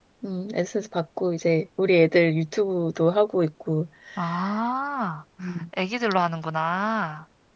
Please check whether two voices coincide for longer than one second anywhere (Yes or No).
No